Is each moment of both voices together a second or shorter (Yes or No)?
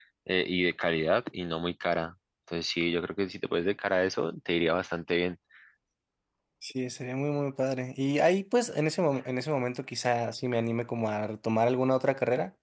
Yes